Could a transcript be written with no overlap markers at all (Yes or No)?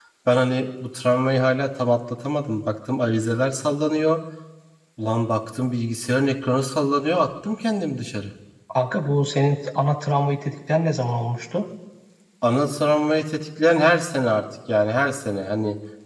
Yes